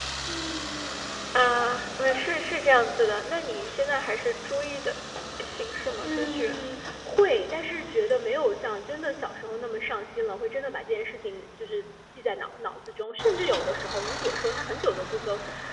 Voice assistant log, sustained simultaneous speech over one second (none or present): none